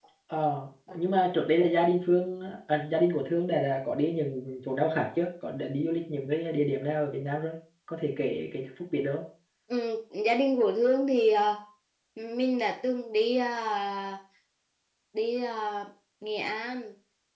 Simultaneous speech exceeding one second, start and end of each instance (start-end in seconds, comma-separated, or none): none